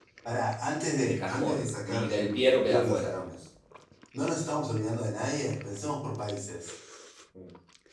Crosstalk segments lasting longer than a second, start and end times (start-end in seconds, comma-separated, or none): 1.0-3.2